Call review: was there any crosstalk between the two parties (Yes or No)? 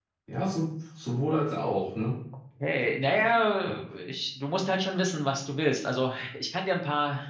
No